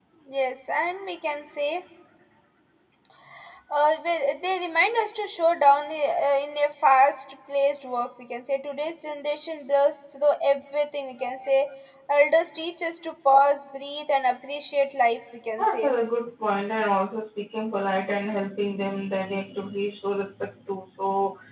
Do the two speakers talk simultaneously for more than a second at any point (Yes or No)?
No